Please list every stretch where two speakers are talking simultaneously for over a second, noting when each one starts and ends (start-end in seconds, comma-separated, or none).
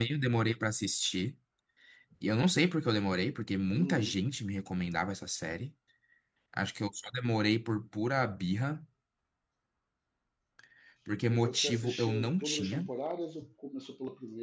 11.3-12.9